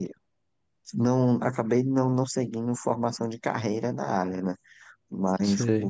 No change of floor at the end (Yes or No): Yes